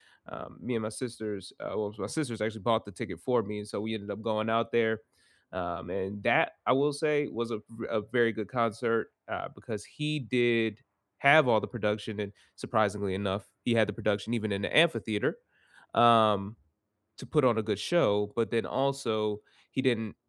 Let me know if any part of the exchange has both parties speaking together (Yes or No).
No